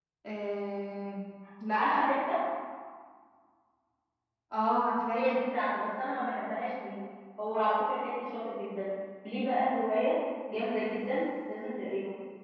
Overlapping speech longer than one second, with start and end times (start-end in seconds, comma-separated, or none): none